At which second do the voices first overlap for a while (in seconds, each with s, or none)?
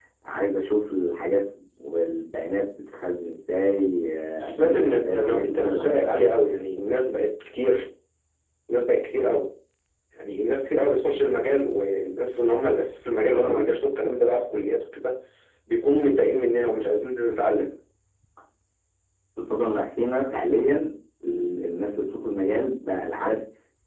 4.4 s